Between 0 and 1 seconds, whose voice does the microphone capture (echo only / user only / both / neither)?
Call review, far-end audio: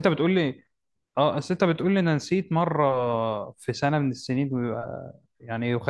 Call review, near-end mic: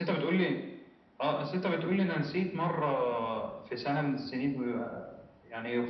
echo only